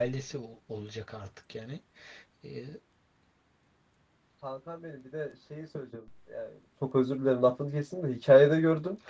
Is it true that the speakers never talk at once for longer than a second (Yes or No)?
Yes